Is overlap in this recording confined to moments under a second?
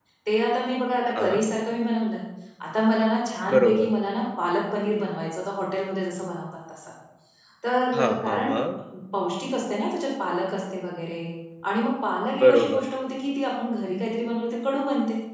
Yes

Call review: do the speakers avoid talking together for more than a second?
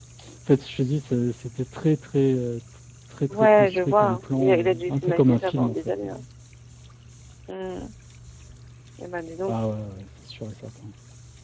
No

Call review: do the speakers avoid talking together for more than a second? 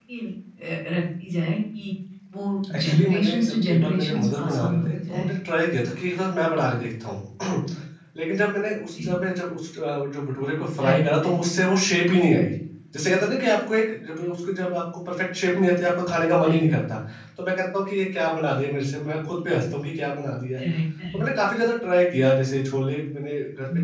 No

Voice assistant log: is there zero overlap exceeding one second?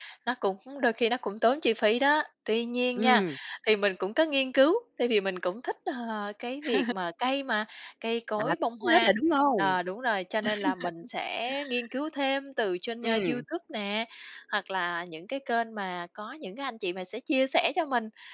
Yes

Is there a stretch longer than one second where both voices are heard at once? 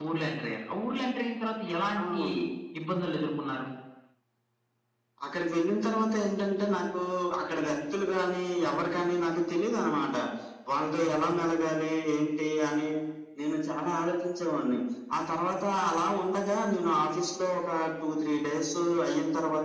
No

